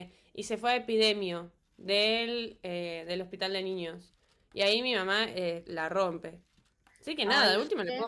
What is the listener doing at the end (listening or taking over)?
taking over